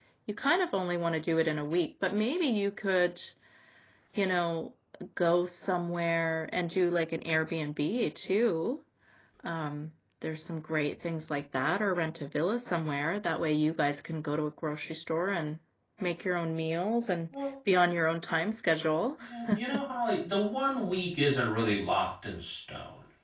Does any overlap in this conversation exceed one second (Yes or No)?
No